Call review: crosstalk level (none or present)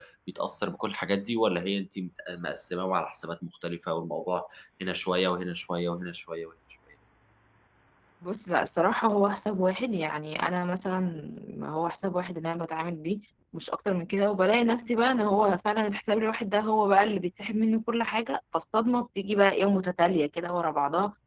none